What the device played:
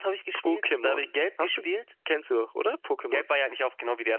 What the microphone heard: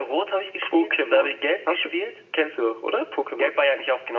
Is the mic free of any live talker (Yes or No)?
Yes